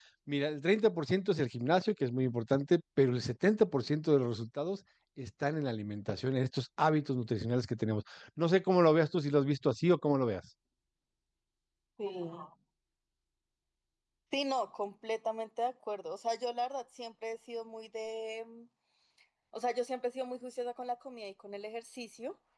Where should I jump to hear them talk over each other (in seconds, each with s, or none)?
none